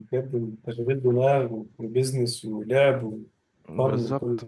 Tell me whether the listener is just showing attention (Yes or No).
No